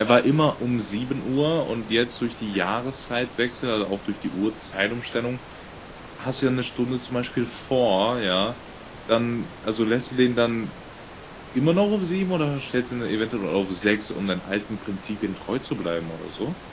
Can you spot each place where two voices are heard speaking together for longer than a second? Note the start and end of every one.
none

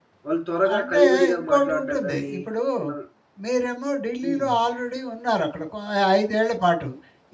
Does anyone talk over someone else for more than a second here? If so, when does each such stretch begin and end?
0.8-2.3

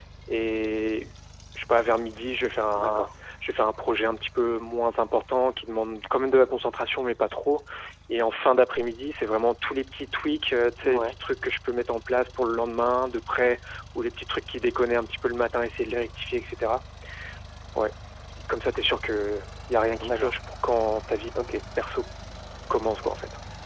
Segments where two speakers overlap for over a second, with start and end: none

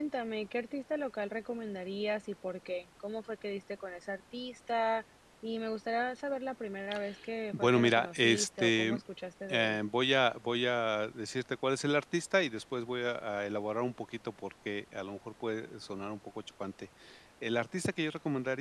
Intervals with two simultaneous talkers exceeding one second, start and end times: 7.5-9.0

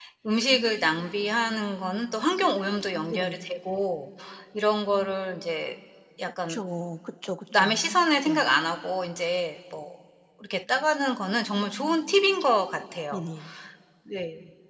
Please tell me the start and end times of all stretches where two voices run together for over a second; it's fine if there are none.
none

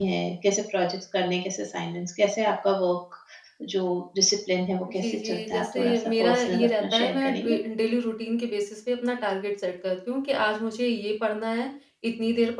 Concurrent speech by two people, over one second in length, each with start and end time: 5.0-7.6

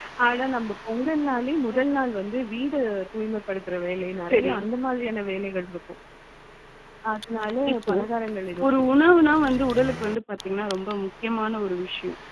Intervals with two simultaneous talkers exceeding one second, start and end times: none

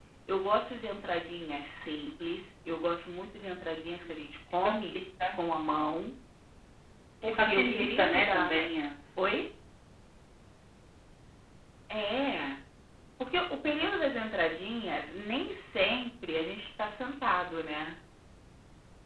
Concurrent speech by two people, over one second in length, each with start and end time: 7.3-8.6

